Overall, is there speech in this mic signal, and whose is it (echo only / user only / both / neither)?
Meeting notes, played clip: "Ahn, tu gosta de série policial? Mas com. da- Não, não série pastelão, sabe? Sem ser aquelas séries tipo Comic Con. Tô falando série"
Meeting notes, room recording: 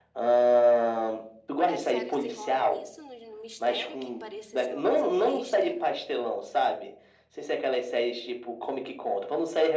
both